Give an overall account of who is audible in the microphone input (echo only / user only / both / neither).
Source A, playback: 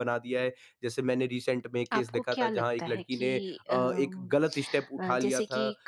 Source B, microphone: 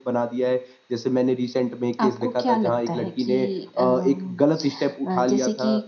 echo only